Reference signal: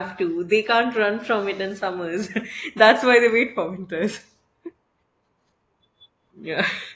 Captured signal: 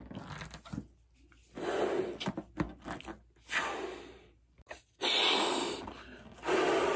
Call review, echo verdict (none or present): none